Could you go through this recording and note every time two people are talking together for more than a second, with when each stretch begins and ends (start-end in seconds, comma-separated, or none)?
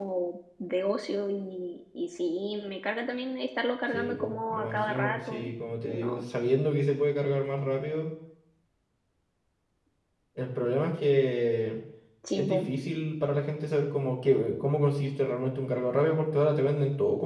3.9-5.5